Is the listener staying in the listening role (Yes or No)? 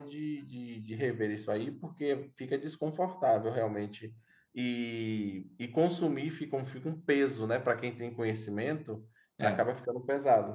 Yes